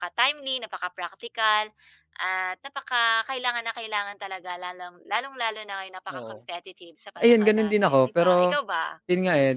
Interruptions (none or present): present